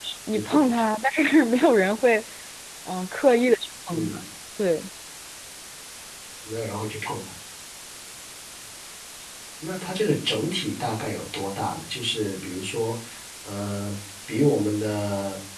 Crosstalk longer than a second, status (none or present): none